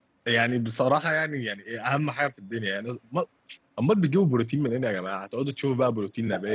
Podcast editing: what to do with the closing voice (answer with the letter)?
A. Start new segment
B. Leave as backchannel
A